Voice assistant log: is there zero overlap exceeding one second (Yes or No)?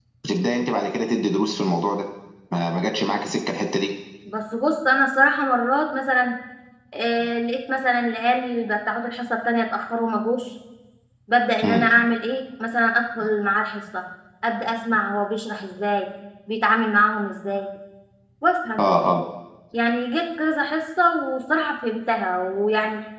Yes